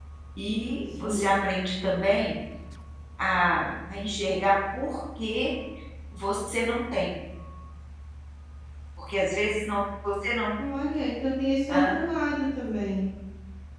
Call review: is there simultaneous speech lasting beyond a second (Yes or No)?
No